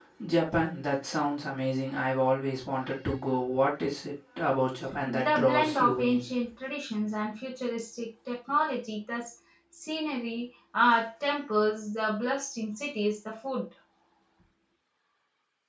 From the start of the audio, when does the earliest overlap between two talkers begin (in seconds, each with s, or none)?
5.0 s